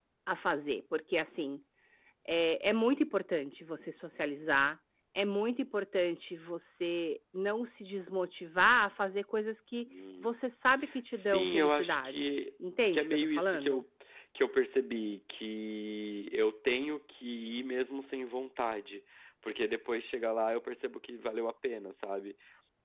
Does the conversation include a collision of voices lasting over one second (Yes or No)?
Yes